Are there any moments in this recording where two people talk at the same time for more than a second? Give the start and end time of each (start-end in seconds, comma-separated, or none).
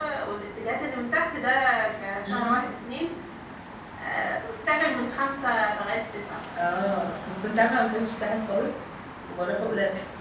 none